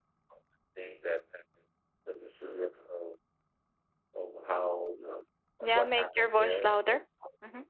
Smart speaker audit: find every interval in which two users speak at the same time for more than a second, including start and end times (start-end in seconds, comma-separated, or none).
5.7-7.0